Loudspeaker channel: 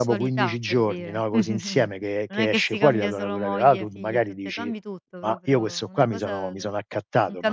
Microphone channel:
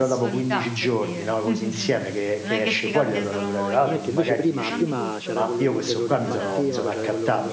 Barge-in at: 3.7 s

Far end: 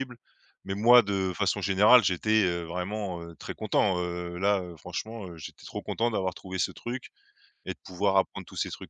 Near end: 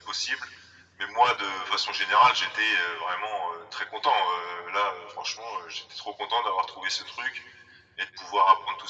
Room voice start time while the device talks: none

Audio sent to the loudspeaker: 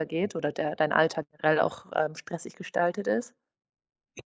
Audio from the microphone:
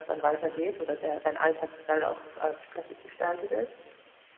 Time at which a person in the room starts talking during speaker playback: none

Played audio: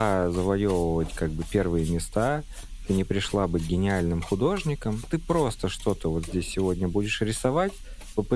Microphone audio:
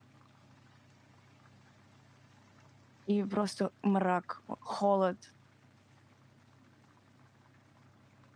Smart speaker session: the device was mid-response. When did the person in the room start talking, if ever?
3.1 s

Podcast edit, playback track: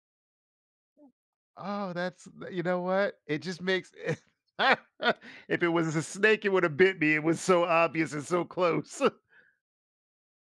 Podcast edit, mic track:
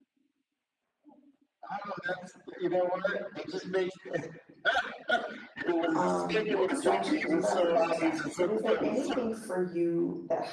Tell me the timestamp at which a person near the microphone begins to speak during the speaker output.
5.9 s

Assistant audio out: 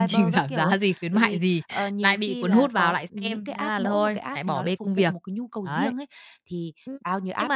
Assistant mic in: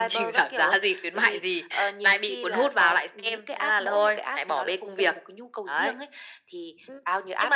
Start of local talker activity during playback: none

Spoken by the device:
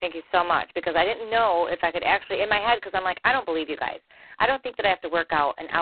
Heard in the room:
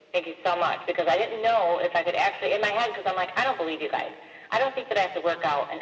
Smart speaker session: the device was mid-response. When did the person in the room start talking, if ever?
none

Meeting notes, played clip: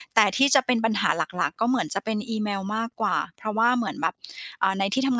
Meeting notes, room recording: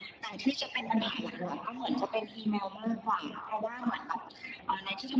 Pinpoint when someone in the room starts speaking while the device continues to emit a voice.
none

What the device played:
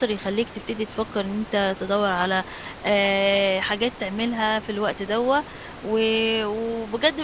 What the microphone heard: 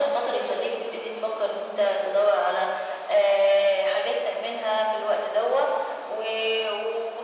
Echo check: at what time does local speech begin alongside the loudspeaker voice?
none

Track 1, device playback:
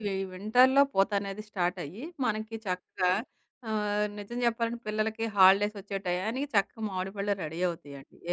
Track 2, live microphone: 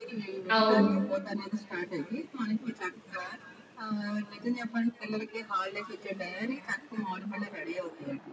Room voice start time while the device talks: 0.6 s

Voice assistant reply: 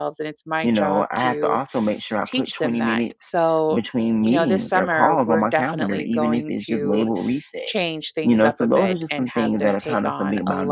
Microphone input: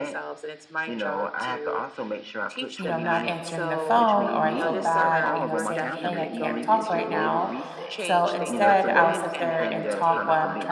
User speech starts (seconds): 2.8 s

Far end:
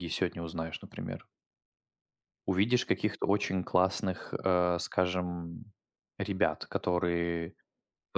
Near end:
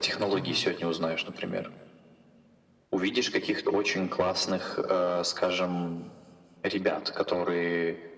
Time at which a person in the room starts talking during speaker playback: 0.3 s

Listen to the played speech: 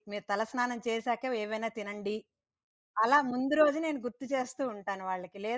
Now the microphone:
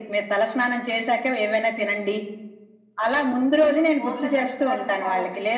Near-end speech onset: 4.0 s

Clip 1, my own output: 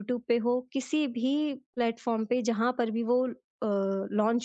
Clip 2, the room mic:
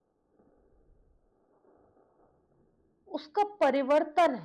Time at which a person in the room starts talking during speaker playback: 3.2 s

